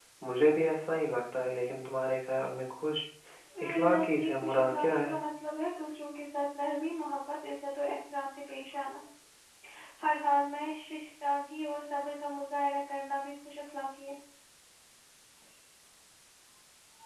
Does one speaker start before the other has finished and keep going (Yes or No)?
Yes